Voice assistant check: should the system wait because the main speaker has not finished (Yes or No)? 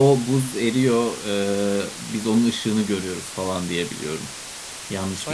No